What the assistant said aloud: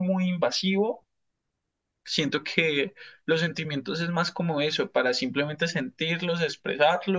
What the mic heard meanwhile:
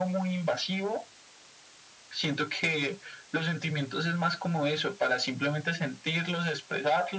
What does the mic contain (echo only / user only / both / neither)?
echo only